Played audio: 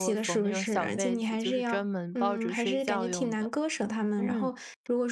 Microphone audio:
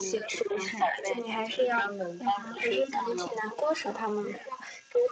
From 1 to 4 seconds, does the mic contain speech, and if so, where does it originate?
echo only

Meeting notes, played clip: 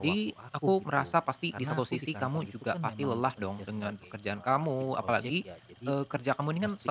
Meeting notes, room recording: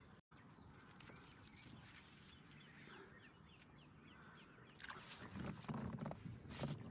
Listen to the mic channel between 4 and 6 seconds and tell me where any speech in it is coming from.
neither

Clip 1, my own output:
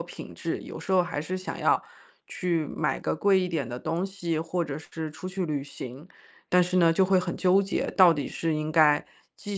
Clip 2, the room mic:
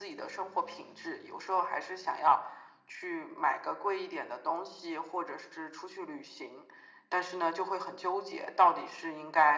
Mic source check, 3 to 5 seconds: echo only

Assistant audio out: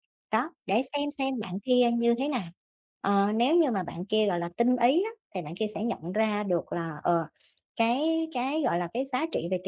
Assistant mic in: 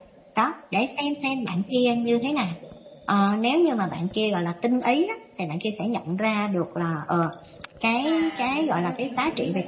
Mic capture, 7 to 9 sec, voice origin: both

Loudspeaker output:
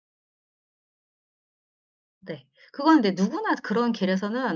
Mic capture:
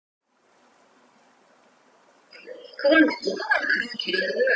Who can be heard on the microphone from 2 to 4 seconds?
echo only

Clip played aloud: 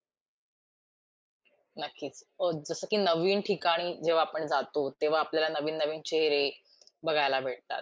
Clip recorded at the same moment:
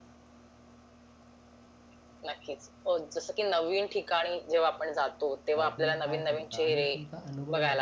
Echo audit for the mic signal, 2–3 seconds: echo only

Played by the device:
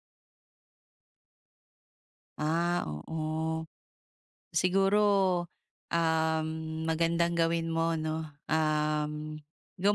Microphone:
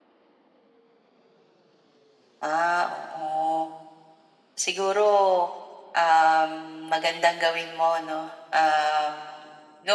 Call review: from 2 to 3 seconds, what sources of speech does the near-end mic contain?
echo only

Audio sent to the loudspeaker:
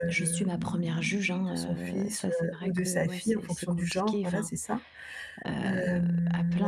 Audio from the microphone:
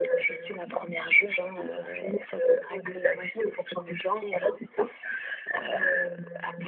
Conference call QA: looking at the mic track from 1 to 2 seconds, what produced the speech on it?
echo only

